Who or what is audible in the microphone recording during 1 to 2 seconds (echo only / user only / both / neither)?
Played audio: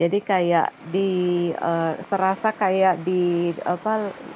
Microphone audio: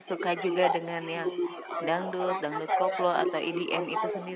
both